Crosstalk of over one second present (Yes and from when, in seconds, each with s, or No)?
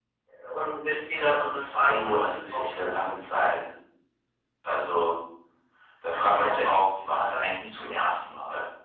Yes, from 1.2 s